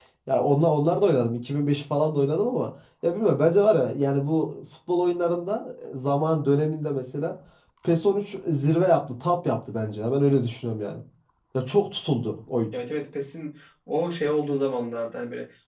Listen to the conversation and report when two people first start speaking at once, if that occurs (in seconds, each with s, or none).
none